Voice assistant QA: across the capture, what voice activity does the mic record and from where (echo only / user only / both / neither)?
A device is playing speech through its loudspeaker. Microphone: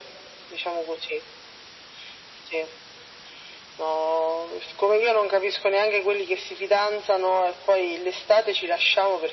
echo only